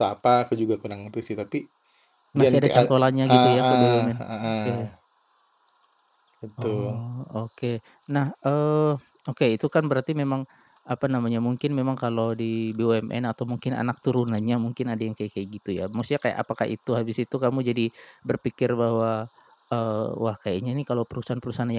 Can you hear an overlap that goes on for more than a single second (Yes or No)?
Yes